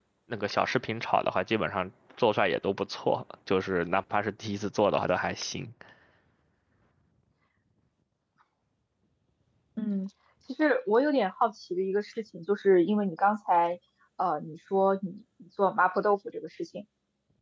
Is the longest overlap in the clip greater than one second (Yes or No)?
No